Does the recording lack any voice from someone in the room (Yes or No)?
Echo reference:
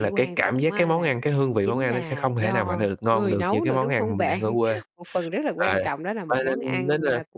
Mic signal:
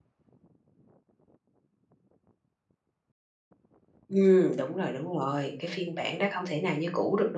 No